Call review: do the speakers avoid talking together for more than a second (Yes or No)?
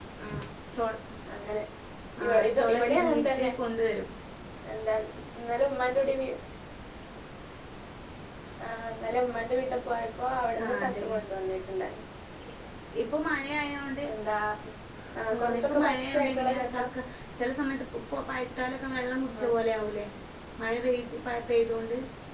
No